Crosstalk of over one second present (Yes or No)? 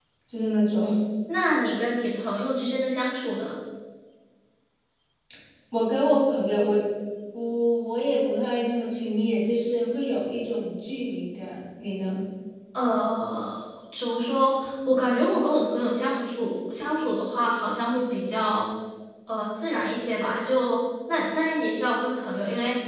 No